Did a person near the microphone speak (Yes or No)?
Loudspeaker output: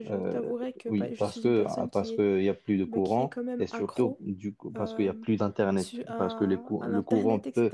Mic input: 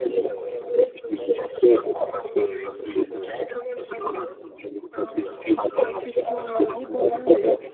Yes